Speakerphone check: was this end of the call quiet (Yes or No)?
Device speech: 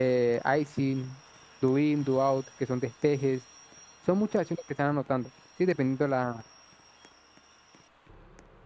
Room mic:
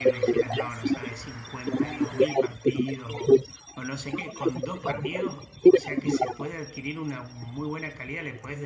No